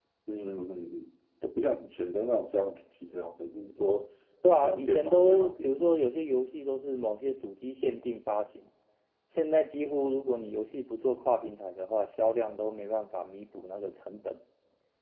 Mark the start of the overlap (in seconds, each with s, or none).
4.6 s